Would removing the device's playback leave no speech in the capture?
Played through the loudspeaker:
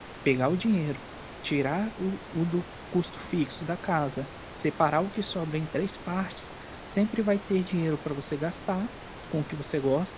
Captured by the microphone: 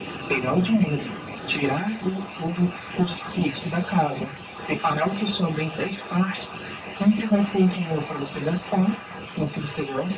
Yes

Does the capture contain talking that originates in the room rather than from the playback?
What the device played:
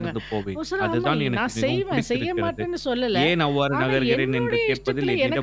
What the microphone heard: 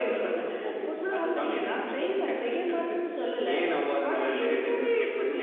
No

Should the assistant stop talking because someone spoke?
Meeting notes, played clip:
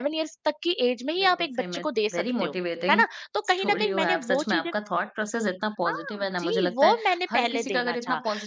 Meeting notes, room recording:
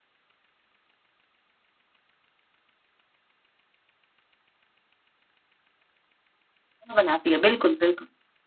Yes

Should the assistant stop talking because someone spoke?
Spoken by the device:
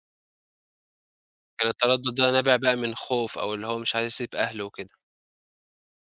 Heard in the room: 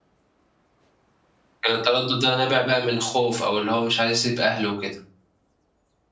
No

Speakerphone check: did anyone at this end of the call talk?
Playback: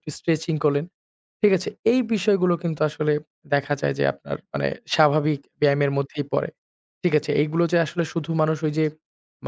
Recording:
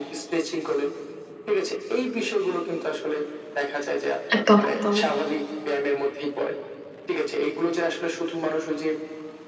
Yes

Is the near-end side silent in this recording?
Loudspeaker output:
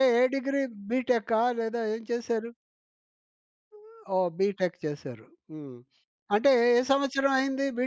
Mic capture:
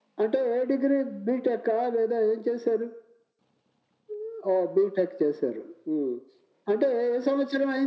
Yes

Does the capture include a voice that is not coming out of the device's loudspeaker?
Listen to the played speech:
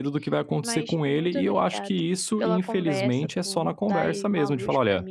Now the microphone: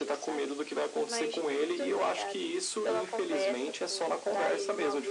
No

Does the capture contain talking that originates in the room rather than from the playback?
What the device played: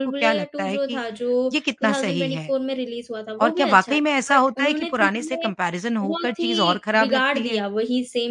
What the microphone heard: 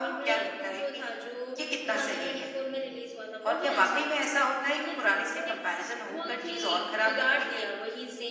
Yes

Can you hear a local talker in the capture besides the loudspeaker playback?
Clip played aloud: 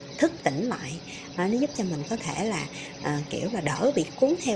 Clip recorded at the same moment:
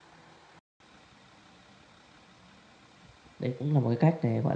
Yes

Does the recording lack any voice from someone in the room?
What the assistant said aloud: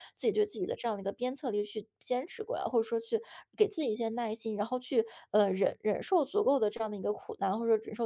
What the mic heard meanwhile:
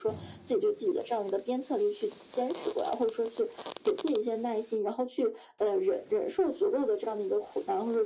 Yes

